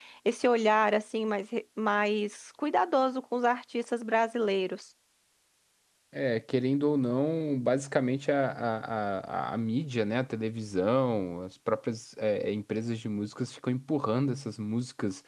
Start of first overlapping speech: none

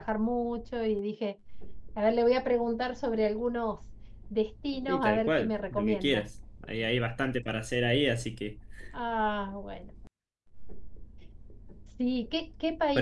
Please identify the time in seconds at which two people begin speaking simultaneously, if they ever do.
4.9 s

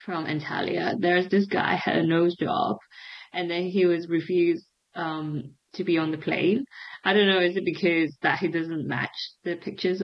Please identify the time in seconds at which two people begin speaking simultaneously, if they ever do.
none

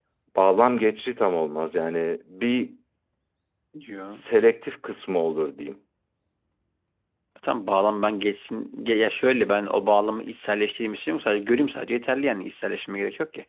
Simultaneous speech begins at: none

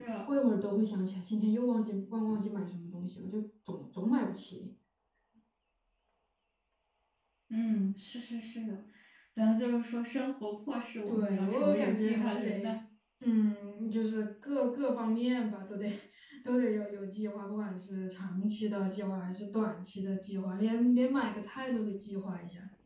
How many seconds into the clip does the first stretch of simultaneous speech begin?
11.1 s

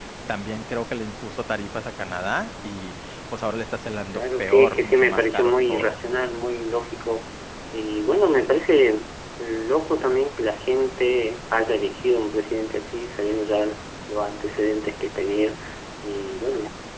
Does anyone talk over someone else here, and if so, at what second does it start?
4.1 s

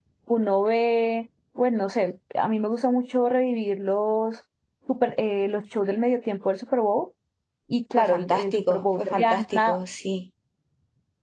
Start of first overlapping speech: 8.0 s

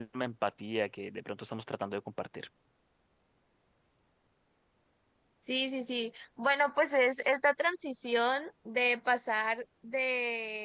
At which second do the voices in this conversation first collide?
none

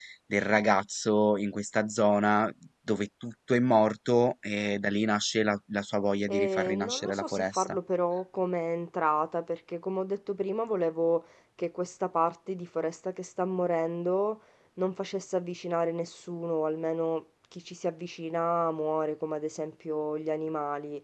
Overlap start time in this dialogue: 6.3 s

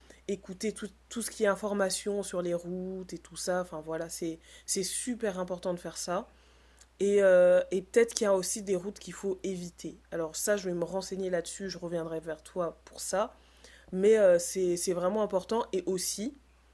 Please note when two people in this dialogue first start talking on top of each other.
none

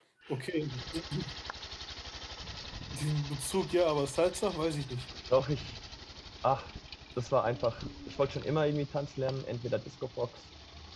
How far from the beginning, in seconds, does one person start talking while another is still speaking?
none

